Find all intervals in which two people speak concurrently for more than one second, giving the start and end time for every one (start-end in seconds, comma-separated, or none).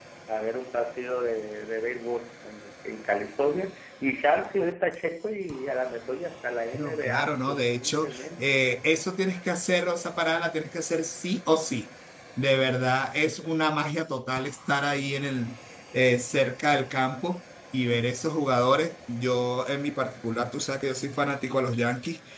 6.7-8.6